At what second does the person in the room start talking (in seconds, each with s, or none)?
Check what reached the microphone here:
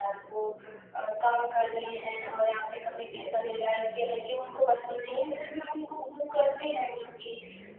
none